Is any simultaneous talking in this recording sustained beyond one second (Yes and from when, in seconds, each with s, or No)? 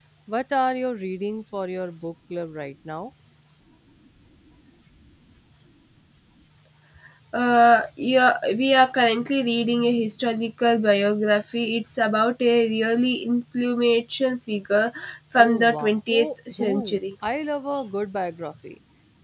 Yes, from 15.4 s